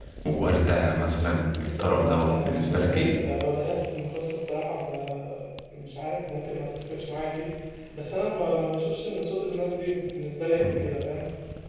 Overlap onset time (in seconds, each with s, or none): 1.6 s